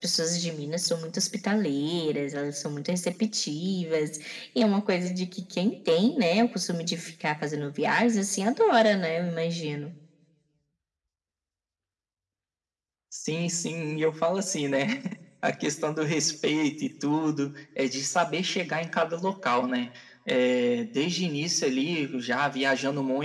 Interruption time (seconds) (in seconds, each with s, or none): none